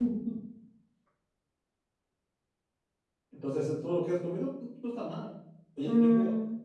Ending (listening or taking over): listening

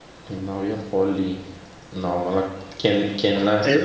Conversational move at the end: taking over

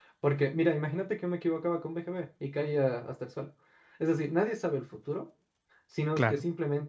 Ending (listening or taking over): listening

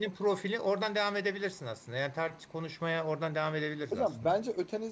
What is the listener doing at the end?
taking over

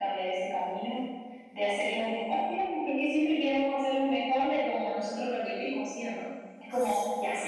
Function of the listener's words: listening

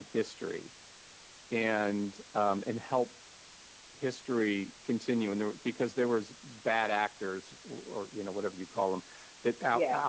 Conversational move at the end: listening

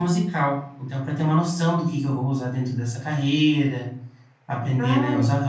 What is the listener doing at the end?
listening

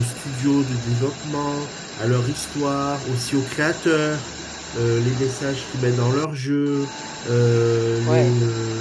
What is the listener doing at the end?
listening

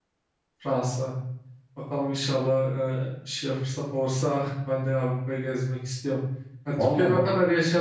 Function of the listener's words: listening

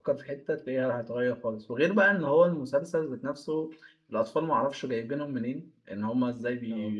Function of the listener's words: listening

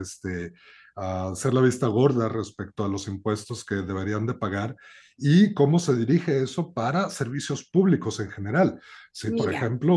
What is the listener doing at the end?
listening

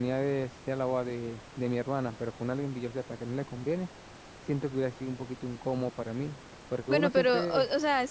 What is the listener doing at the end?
taking over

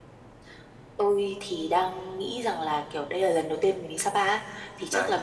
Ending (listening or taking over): listening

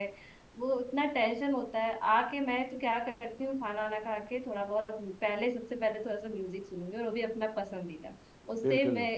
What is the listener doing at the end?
listening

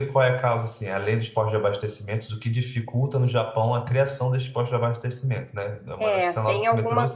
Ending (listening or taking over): taking over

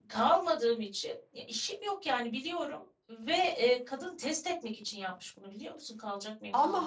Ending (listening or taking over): taking over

